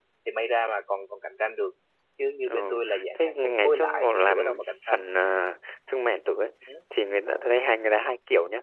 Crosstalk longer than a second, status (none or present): present